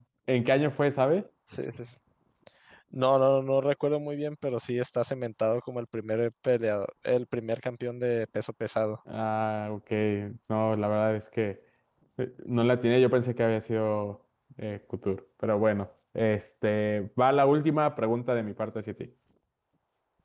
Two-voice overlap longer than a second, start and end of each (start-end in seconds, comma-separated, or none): none